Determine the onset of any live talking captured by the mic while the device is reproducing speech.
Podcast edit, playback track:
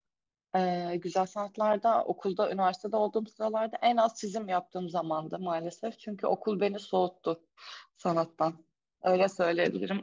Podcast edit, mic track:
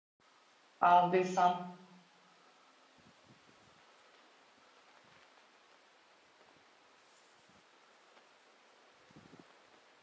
1 s

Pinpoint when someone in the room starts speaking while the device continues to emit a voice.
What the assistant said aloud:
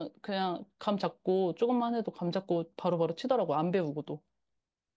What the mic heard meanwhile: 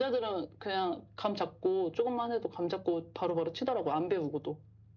none

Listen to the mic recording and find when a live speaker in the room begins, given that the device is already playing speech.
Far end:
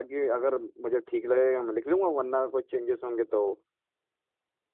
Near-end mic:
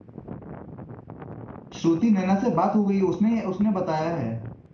2 s

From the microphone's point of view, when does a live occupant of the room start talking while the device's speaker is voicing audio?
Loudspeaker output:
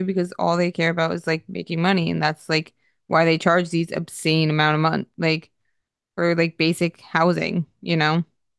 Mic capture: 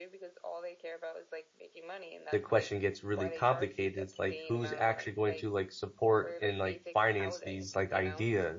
2 s

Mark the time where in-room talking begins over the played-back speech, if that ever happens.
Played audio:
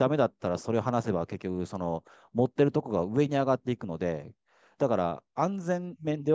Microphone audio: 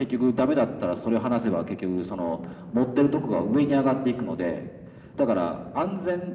none

